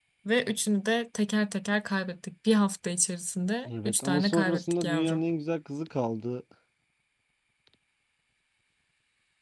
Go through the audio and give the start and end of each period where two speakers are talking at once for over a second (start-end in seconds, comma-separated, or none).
3.6-5.2